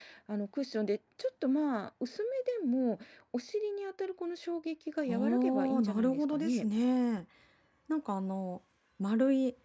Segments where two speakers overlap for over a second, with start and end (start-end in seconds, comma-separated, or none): 5.1-6.6